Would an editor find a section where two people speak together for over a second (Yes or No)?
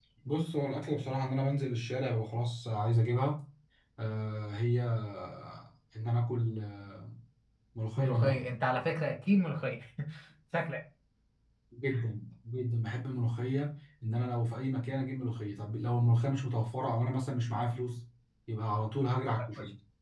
No